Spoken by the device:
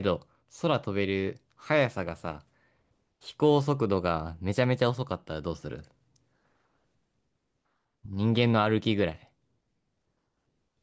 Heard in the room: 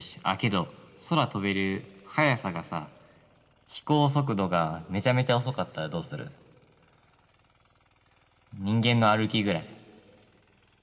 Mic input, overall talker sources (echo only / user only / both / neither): echo only